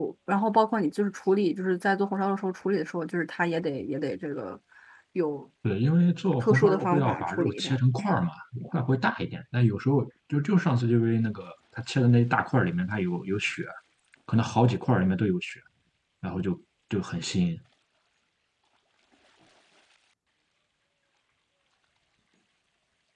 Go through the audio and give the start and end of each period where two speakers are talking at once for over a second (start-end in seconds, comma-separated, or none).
6.4-7.7